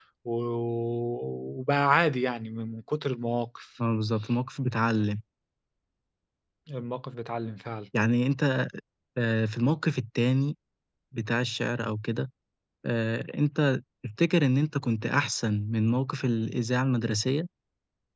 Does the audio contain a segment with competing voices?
No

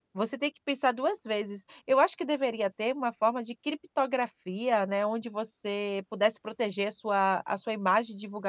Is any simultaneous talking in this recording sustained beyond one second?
No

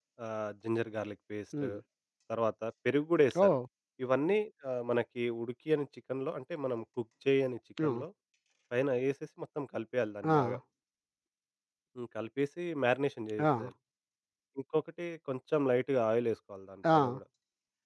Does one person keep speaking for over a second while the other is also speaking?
No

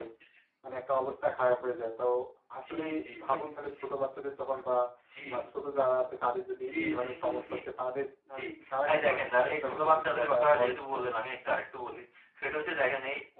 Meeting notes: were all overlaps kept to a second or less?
No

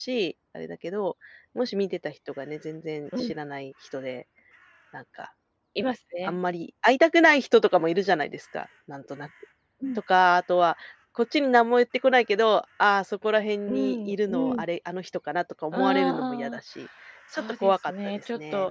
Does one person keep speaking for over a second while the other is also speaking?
Yes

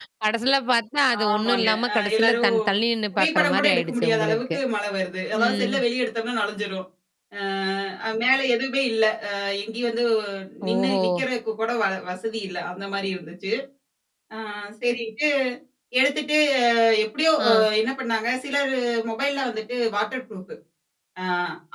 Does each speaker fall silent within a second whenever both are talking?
No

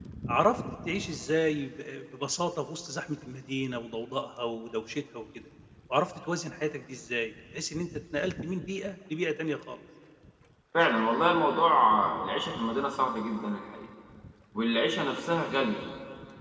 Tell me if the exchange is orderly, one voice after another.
Yes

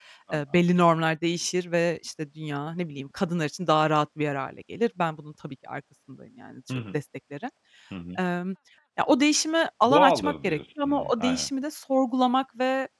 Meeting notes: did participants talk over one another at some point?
Yes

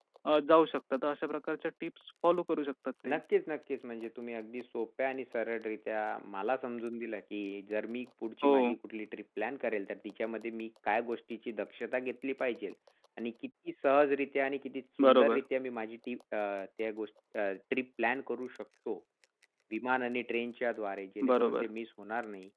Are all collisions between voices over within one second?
Yes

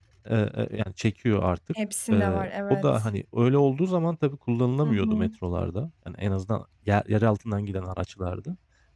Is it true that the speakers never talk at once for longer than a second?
Yes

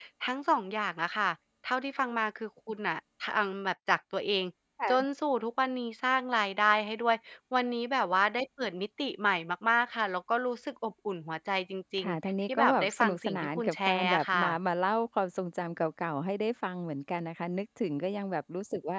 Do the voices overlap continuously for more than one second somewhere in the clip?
Yes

